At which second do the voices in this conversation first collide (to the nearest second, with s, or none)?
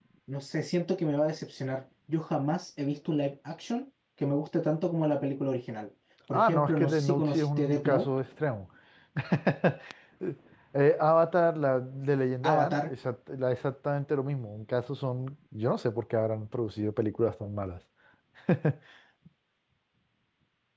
6 s